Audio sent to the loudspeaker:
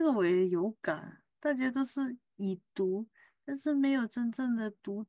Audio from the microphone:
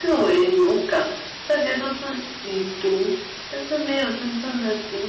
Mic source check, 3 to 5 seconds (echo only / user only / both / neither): echo only